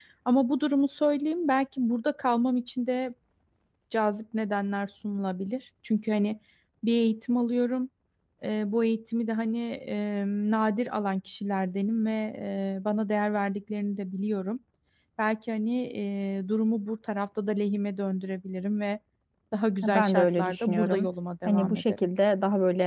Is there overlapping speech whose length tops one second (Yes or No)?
Yes